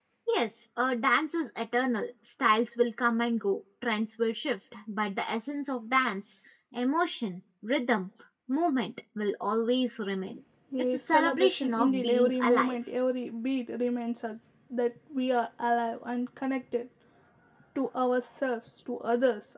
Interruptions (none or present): present